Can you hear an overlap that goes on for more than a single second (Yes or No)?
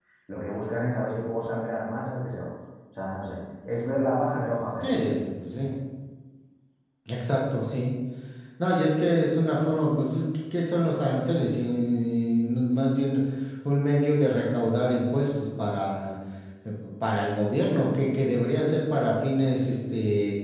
No